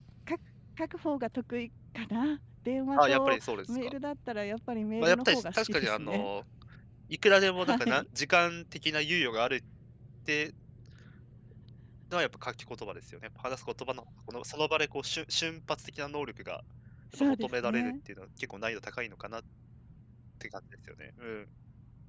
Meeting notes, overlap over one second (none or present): present